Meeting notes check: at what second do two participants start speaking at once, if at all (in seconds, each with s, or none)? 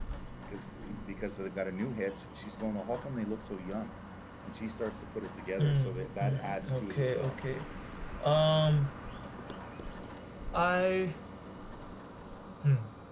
5.6 s